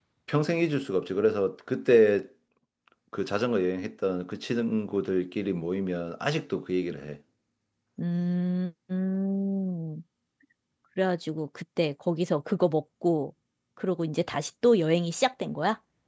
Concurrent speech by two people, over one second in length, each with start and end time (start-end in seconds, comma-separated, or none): none